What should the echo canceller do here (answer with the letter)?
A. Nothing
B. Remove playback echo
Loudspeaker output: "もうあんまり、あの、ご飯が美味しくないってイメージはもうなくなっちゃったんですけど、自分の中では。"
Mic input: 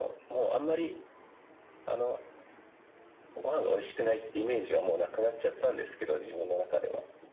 B